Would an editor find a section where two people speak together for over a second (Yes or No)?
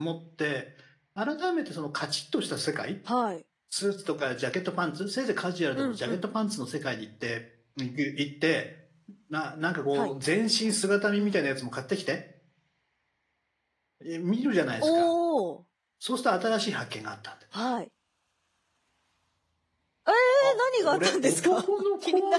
Yes